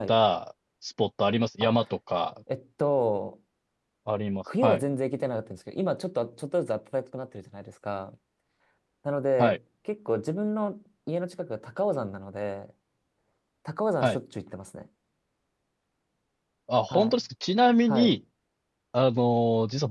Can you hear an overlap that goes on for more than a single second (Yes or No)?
No